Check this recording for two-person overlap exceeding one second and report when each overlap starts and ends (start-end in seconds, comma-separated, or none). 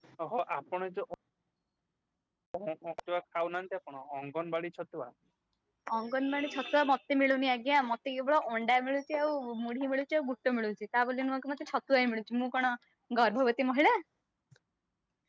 none